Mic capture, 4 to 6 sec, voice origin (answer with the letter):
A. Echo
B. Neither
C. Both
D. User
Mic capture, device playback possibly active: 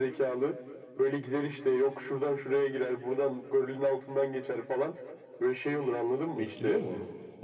A